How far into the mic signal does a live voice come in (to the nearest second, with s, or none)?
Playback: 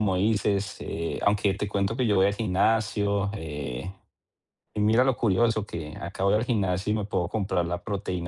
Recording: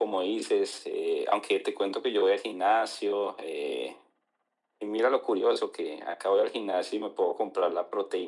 none